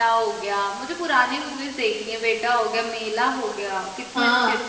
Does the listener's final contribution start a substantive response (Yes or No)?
Yes